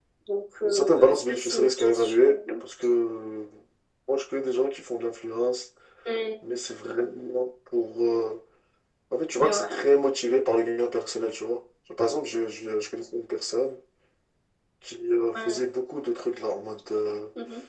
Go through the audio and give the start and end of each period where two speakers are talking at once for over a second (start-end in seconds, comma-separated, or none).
0.6-2.4